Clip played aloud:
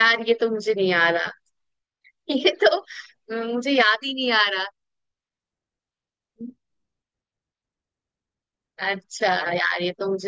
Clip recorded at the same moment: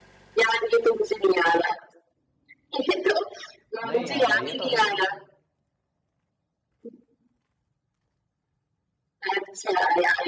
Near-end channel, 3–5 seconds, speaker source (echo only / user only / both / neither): both